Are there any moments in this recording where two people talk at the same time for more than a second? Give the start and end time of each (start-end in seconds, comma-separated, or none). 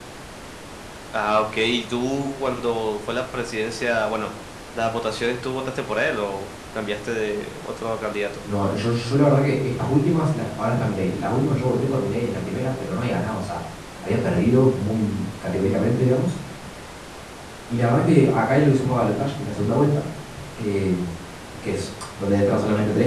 none